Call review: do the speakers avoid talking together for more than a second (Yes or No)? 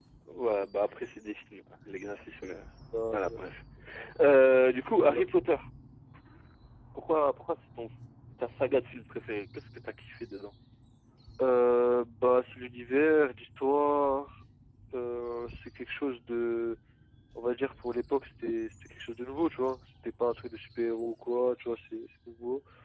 Yes